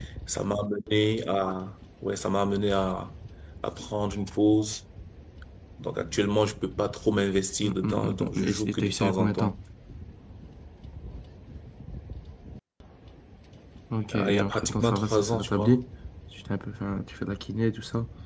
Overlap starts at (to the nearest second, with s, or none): 8 s